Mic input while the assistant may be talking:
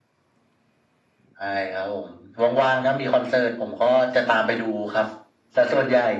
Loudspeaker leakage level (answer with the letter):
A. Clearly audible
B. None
A